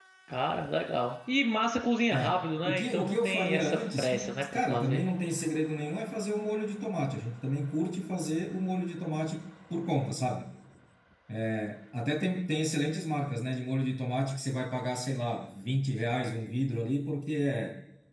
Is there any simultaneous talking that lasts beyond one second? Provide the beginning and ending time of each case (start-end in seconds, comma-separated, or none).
2.1-5.0